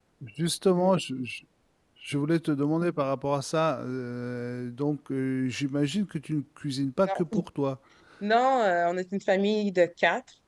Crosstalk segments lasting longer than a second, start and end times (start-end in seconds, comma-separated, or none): none